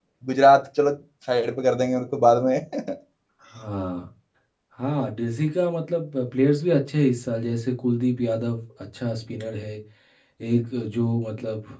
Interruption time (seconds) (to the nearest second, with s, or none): none